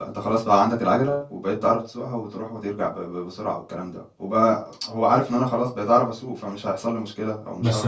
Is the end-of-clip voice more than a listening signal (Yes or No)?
Yes